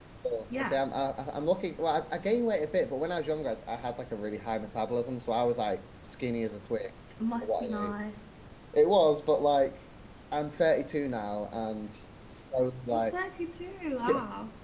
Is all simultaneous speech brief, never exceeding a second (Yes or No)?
Yes